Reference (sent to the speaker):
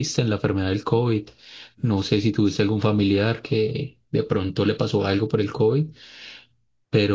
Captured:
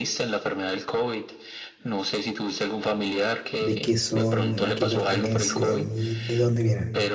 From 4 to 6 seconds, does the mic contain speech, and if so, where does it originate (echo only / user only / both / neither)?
both